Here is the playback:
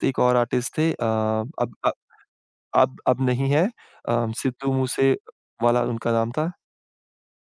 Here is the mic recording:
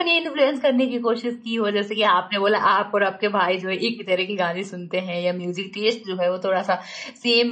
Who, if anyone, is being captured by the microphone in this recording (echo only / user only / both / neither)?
user only